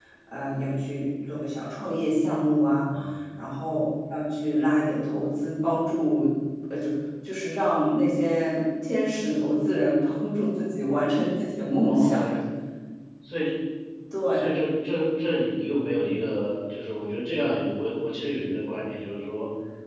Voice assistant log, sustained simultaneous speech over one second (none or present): none